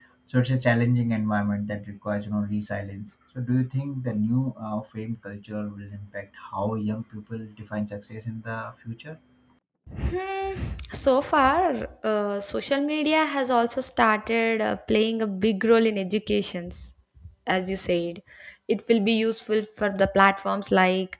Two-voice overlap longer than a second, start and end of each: none

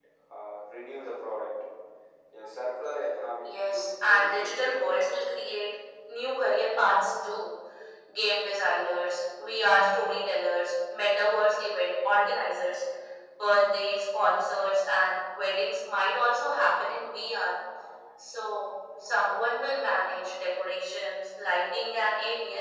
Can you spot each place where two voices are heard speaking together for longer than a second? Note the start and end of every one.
3.4-5.0

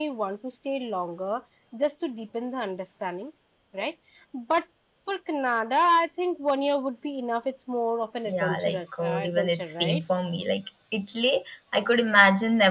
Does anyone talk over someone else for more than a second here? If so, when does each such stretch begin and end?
8.3-10.0

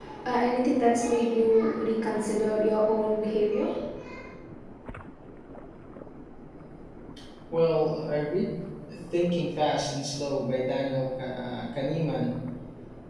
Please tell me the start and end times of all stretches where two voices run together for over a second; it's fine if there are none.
none

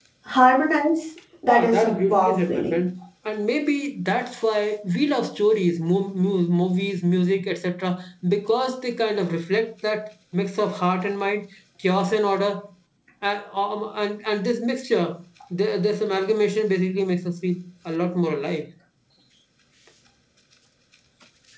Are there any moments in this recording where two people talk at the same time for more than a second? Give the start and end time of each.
1.5-2.8

